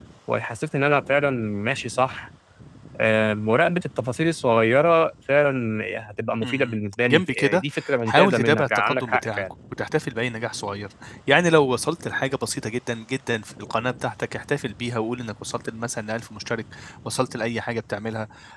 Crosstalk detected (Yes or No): Yes